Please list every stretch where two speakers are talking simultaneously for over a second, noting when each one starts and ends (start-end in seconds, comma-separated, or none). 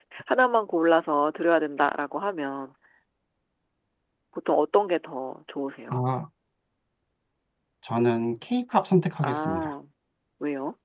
none